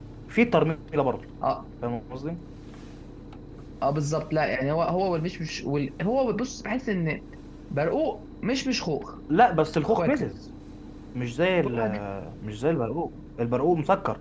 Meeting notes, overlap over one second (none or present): none